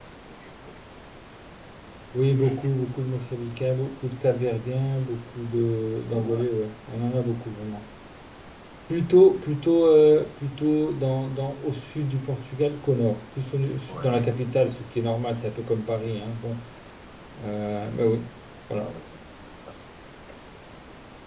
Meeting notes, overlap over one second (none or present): none